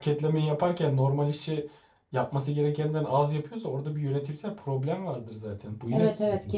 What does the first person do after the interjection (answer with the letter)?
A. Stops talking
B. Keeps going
A